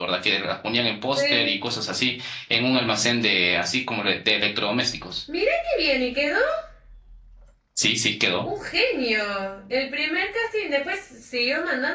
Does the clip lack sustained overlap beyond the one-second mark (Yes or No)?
Yes